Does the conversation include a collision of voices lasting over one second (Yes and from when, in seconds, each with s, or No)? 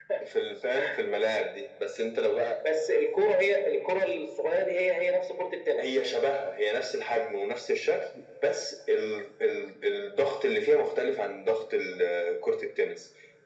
No